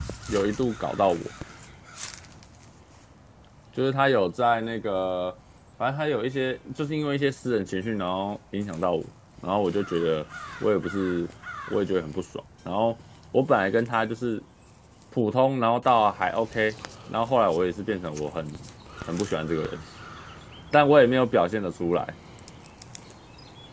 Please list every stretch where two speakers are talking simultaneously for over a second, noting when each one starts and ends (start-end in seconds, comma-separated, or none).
none